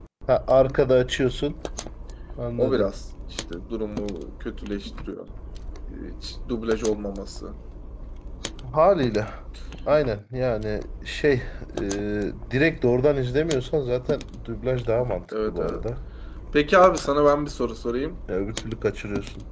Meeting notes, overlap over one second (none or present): none